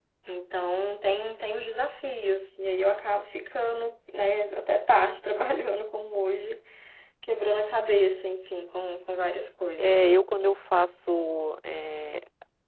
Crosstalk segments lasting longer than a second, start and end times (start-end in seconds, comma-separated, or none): none